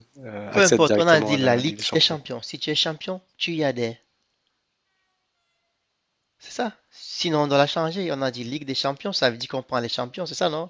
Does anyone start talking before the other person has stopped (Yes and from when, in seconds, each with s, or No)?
Yes, from 0.6 s